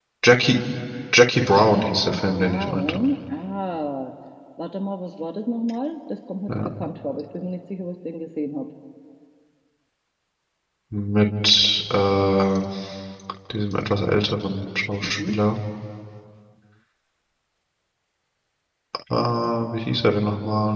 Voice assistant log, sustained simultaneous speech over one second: present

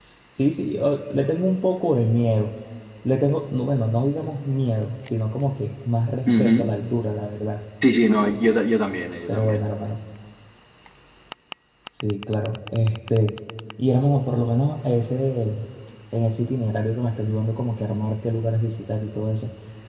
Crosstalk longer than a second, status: none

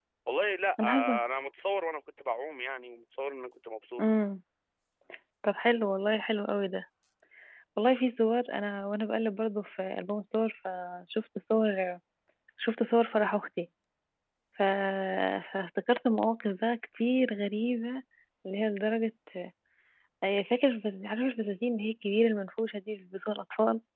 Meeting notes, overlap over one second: none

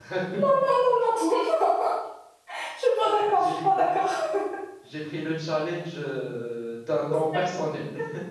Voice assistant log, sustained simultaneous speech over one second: none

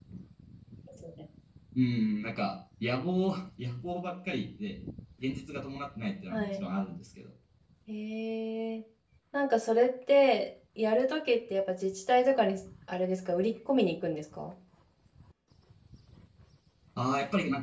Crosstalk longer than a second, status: none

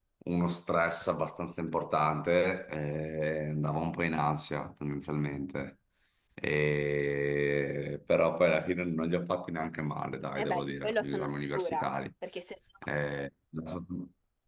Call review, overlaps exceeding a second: present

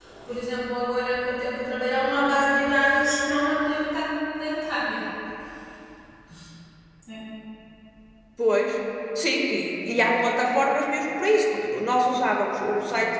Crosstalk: none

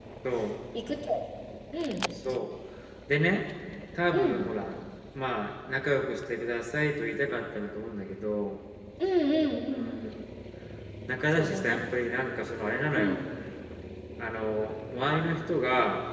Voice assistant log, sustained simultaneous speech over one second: none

